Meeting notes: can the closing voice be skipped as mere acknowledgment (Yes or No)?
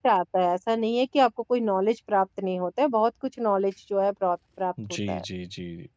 No